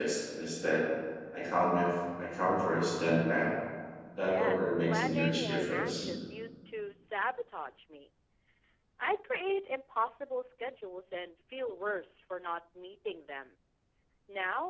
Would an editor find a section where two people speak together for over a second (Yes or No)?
Yes